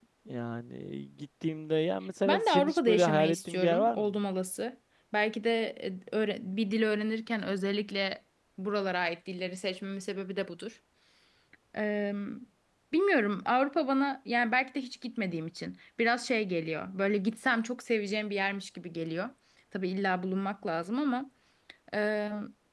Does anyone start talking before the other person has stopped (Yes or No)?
Yes